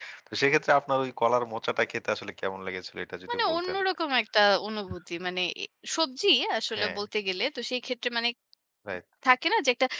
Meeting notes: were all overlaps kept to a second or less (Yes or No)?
Yes